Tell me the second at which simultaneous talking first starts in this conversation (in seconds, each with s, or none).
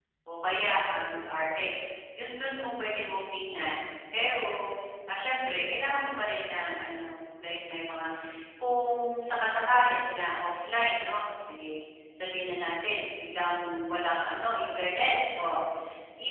none